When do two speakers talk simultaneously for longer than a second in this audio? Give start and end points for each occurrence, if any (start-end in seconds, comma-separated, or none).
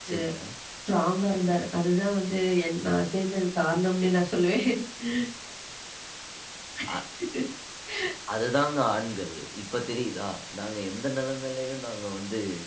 none